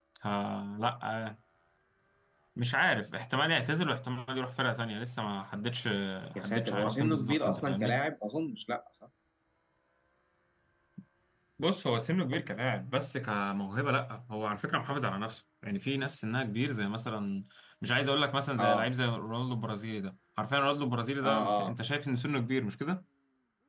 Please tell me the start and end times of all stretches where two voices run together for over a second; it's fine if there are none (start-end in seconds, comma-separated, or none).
6.3-8.0